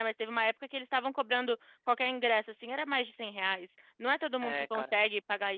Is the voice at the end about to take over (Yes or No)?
No